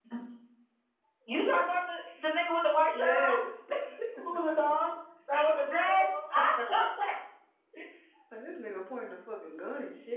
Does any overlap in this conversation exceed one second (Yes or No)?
No